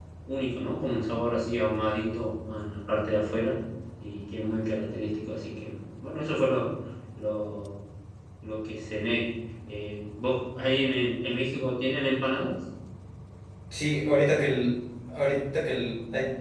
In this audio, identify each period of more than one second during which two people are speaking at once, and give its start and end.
none

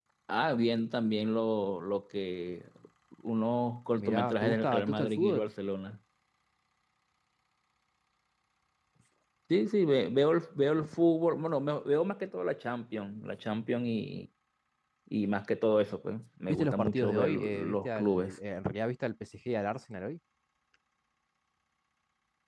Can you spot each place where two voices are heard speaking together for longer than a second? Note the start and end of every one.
4.0-5.5, 16.5-18.4

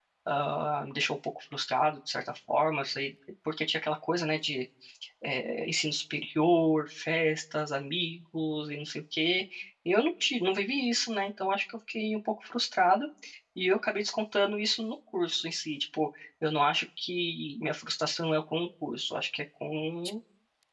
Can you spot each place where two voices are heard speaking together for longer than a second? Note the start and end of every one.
none

